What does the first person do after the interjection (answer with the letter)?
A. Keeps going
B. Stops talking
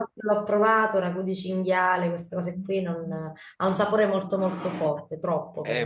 B